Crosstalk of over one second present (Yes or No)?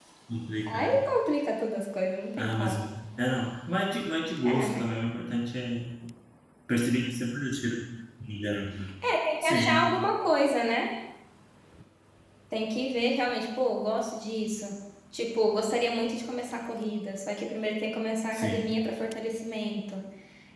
No